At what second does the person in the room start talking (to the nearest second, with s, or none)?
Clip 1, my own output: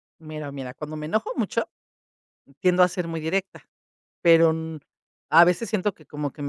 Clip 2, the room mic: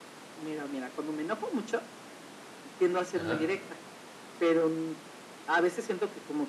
3 s